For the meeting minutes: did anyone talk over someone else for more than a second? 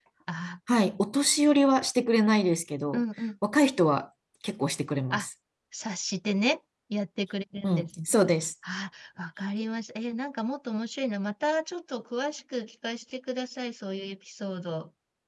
No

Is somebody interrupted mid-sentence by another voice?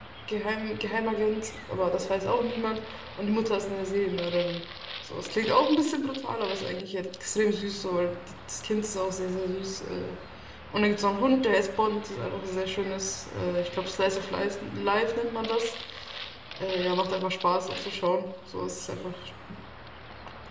No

